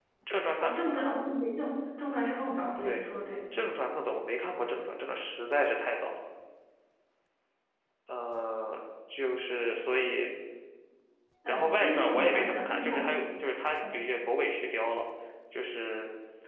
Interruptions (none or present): present